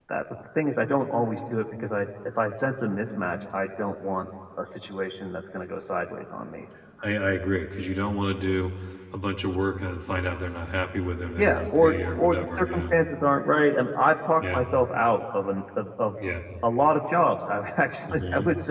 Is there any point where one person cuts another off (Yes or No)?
Yes